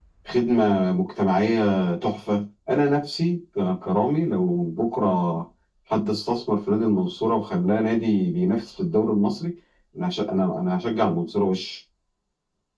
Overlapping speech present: No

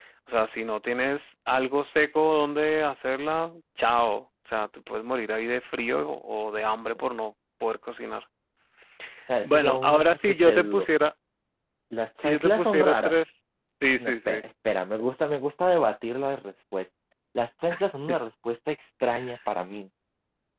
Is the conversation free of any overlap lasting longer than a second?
No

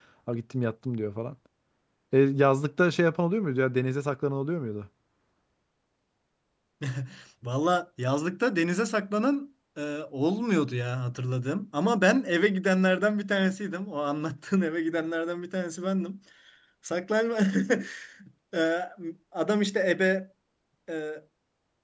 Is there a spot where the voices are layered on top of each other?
No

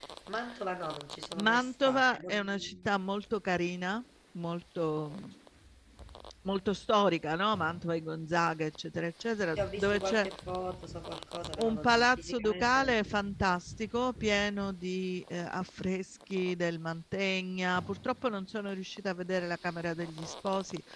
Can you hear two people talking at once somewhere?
Yes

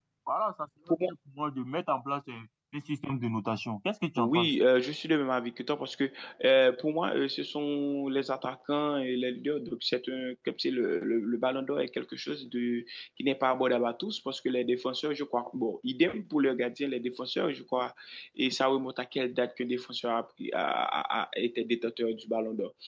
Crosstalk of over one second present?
No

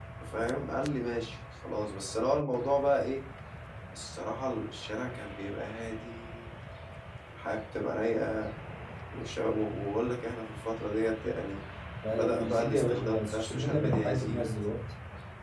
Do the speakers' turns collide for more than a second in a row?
Yes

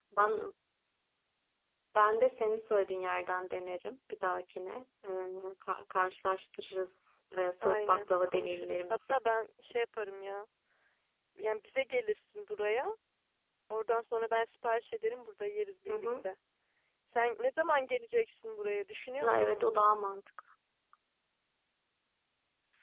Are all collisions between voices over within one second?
No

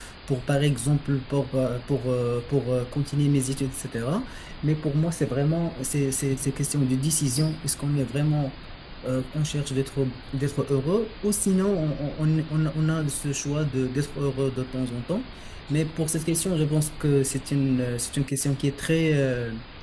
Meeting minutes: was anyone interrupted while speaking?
No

